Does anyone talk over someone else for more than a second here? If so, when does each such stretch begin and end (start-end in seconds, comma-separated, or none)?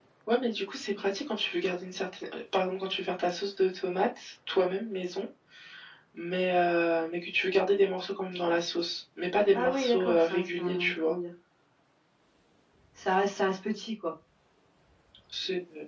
9.5-11.1